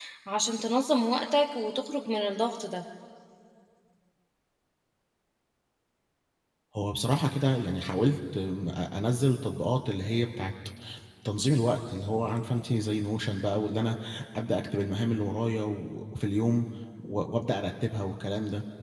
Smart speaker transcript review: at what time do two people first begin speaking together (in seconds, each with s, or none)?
none